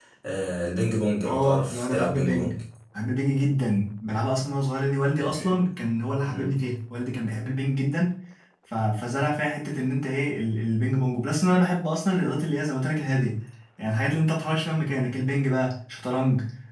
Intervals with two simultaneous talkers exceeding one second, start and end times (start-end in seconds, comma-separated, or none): 1.2-2.5